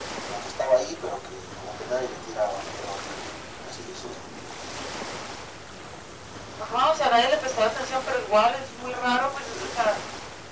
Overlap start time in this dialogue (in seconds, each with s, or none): none